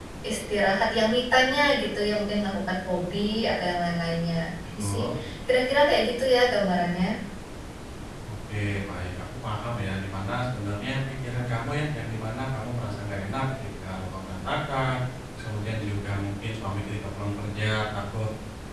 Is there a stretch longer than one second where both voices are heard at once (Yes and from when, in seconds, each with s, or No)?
No